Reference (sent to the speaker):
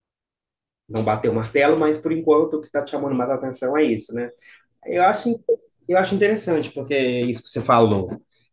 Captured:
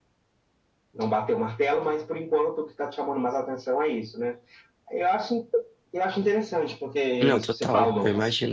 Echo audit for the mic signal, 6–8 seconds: both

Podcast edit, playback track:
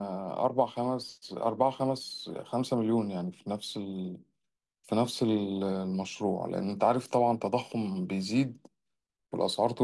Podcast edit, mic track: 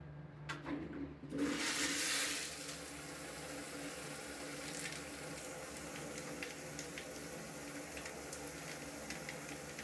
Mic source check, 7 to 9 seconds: neither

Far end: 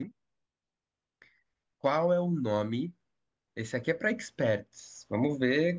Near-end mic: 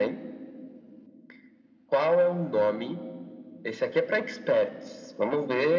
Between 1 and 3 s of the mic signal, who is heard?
echo only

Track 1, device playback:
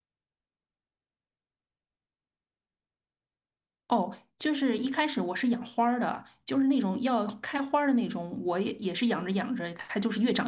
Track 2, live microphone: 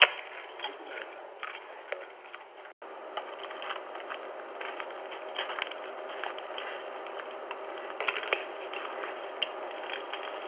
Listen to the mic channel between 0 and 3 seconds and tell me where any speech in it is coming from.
neither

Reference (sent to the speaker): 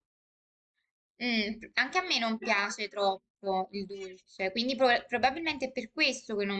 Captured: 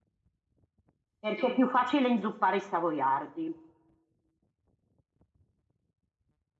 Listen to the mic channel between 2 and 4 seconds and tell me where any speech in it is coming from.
user only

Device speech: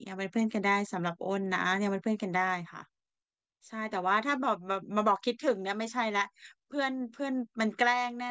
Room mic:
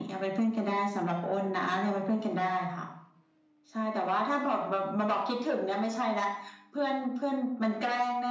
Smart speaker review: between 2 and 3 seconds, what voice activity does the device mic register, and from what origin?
echo only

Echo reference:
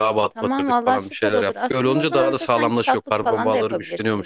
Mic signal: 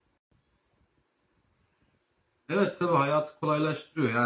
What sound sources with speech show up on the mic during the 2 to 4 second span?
user only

